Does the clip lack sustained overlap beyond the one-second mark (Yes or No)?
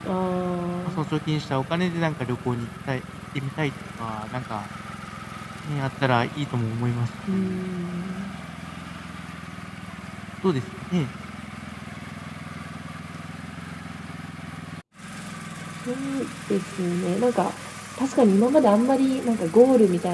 Yes